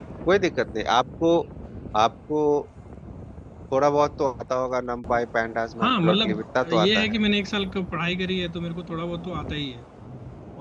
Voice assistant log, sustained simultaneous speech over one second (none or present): present